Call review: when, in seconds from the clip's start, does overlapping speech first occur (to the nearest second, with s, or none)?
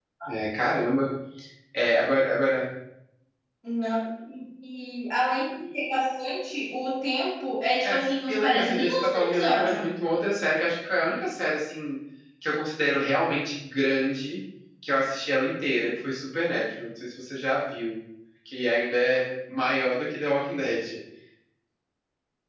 8 s